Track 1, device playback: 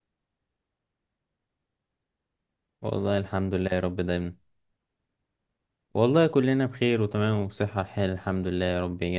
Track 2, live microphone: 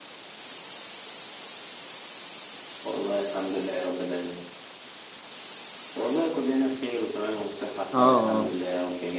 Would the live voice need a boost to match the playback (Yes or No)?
No